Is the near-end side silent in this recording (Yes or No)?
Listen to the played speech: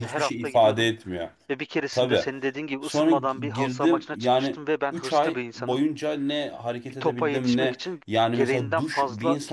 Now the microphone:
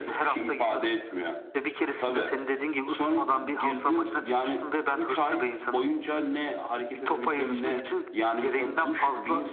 Yes